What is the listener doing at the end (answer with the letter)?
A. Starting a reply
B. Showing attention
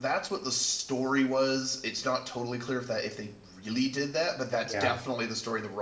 B